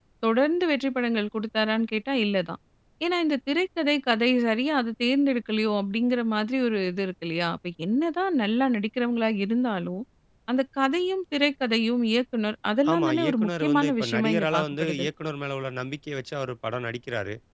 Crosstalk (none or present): present